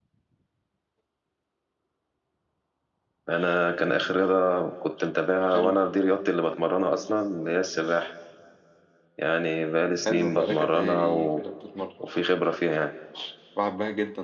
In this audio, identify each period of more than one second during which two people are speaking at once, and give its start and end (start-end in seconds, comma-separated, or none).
10.1-11.4